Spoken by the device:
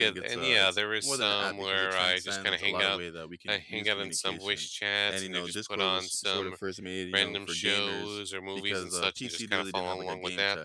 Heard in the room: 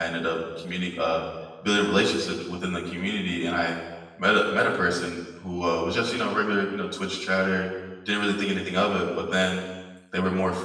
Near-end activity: present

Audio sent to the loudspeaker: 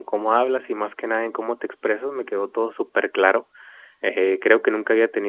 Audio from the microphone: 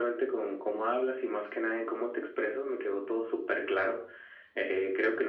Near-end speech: none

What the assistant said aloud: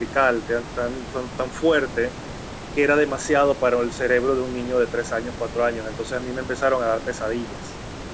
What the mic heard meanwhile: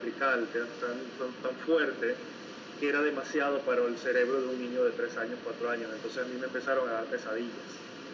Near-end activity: none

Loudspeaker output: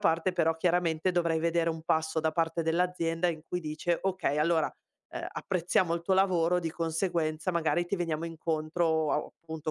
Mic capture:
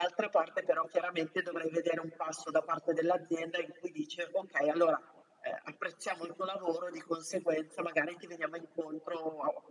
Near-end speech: none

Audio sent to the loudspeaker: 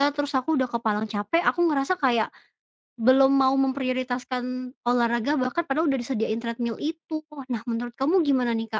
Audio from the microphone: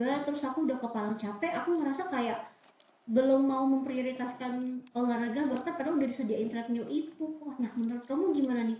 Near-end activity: none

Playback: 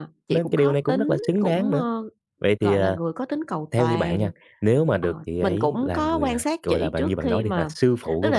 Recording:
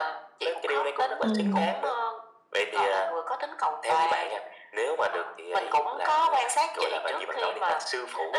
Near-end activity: present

